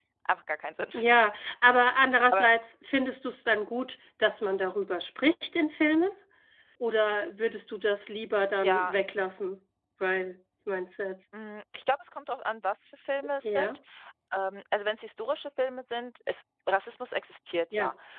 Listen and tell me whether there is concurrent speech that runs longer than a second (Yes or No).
No